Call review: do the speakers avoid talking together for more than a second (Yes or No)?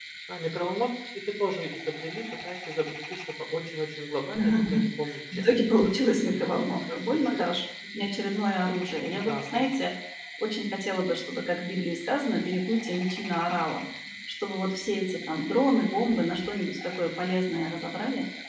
No